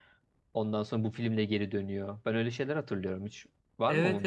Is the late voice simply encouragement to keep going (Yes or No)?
No